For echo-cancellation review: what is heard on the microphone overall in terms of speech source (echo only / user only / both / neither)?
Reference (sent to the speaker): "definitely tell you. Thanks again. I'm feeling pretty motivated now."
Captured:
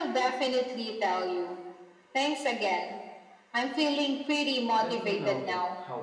both